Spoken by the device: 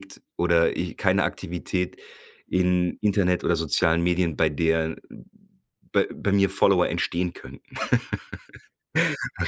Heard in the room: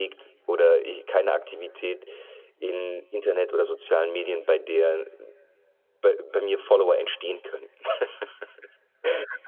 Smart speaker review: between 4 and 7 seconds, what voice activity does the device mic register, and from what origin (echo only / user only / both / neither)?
echo only